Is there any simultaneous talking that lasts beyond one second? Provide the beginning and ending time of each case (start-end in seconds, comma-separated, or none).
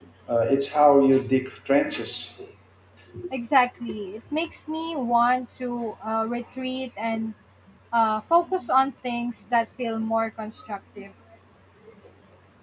none